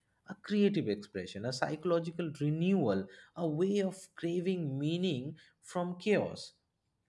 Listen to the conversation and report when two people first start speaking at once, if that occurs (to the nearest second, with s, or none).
none